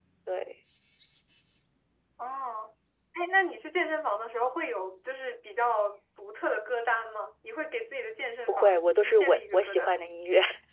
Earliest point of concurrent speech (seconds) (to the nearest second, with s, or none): 8 s